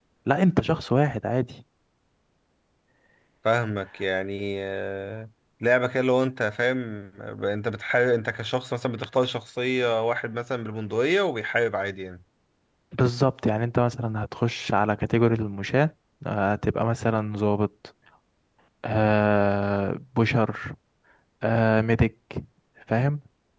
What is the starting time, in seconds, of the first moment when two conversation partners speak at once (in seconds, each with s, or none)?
none